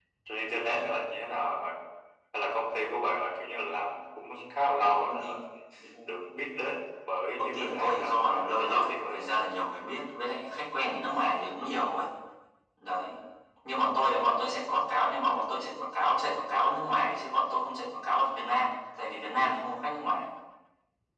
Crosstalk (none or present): present